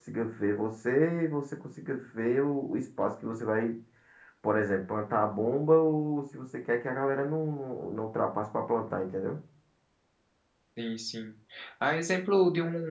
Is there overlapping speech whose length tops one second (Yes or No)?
No